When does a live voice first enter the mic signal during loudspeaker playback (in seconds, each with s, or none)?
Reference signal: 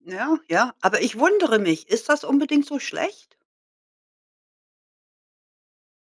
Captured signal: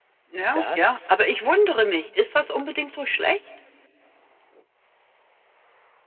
0.5 s